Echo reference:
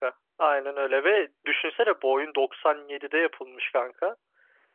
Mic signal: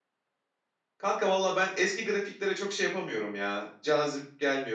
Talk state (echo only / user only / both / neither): user only